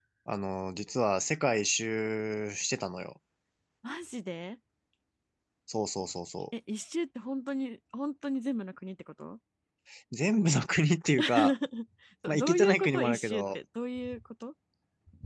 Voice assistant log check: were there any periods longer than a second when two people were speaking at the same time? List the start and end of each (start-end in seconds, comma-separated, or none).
12.3-13.6